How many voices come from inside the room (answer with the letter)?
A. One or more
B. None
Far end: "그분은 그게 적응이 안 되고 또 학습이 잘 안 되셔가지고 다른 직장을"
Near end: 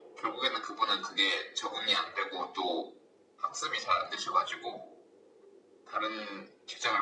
B